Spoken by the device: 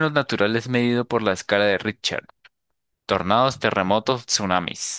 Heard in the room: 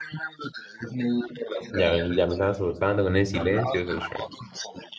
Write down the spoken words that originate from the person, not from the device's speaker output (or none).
ya, ven, ya me estaba asustando con el silencio, socio.